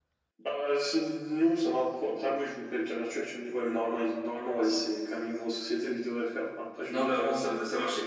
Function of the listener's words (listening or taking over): taking over